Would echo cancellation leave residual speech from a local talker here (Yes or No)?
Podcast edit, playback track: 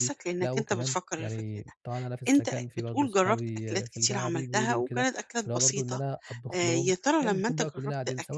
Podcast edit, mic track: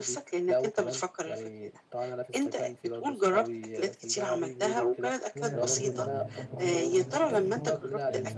Yes